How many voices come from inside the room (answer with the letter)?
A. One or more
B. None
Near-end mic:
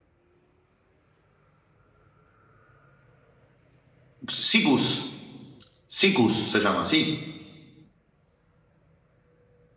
A